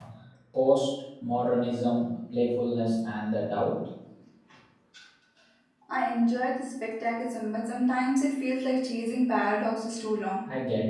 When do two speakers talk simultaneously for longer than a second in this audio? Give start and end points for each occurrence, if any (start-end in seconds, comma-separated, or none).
none